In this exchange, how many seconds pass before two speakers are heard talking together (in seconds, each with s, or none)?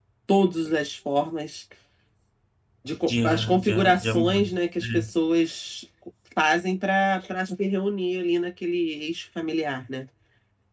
3.1 s